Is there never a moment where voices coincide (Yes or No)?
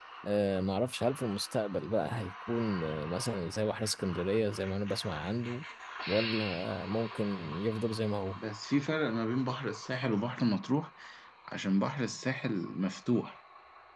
Yes